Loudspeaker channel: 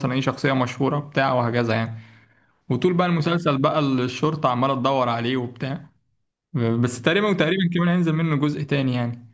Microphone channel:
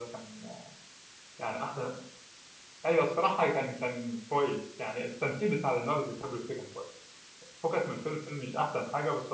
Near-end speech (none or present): present